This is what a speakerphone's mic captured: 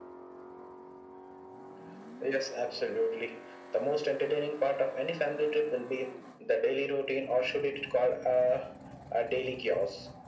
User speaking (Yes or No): No